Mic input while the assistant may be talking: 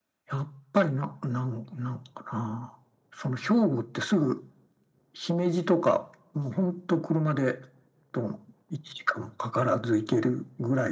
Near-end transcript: none

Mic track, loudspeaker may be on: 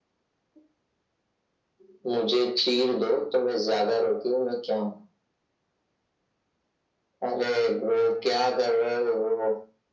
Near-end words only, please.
none

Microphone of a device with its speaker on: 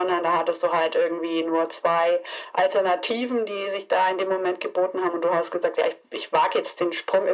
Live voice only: none

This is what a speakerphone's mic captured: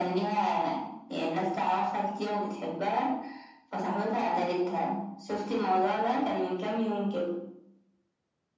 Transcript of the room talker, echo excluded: none

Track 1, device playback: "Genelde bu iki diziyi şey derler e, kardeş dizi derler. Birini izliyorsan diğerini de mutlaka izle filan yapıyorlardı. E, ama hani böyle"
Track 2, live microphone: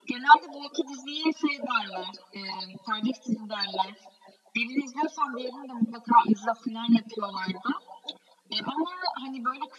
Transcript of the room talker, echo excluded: none

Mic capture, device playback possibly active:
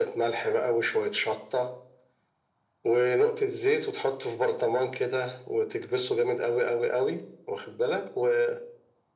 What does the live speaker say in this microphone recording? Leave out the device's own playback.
none

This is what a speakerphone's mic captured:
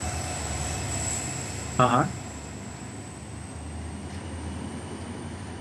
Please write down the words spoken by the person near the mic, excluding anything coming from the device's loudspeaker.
हाँ हाँ,

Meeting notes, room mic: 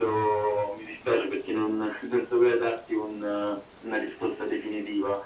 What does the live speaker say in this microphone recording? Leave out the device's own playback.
none

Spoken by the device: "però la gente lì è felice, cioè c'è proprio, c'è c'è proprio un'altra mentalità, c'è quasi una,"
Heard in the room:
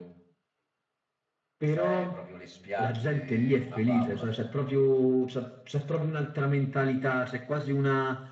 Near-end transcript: Cioè, proprio le spiagge, una favola.

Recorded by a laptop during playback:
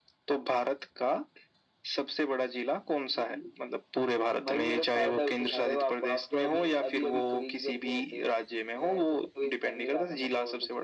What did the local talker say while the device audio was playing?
none

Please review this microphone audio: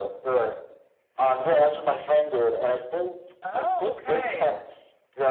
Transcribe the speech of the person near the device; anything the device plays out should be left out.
Oh, okay.

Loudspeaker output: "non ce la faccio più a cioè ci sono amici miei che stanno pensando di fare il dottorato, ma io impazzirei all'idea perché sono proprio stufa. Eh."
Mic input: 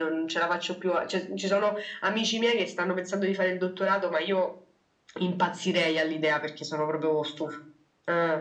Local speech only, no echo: none

